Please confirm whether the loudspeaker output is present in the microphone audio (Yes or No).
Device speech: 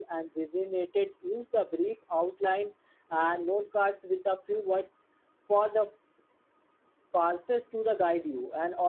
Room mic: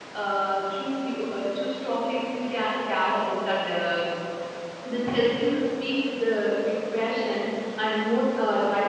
No